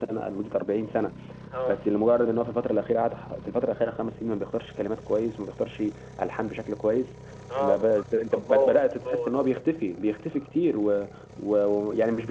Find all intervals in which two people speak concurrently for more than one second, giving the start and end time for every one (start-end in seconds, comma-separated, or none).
7.6-9.6